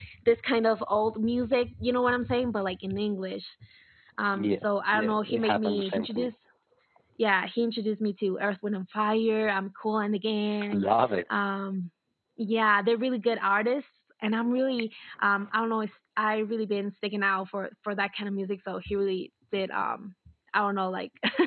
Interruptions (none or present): present